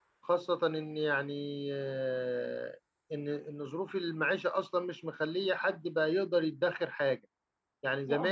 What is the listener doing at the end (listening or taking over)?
listening